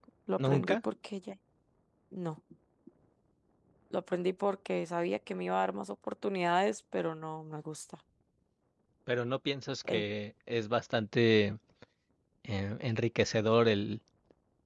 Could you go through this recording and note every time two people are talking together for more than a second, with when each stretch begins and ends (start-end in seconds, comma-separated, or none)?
none